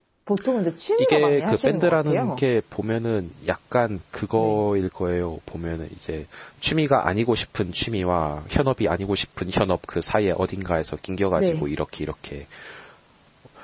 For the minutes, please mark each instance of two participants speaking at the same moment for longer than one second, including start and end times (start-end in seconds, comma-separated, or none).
1.0-2.4